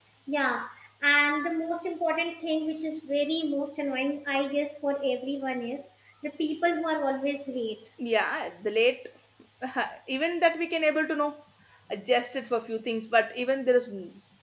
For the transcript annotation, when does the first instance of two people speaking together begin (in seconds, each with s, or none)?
none